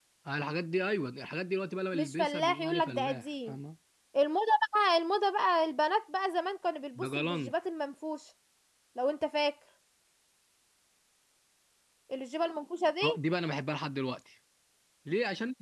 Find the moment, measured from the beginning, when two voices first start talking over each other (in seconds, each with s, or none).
1.9 s